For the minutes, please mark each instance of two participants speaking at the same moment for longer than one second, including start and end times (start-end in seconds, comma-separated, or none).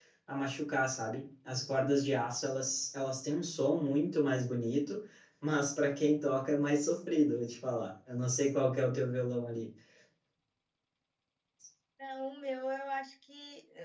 none